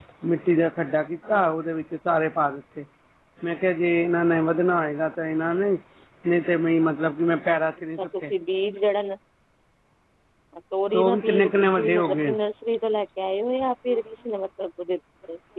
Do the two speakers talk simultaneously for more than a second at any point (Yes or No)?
Yes